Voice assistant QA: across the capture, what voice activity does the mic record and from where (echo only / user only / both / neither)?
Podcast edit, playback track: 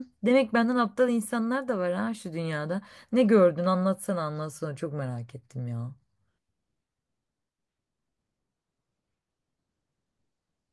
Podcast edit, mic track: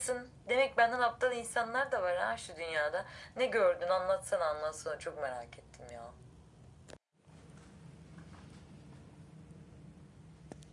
echo only